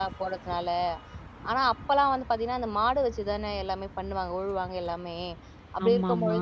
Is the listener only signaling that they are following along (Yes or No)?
Yes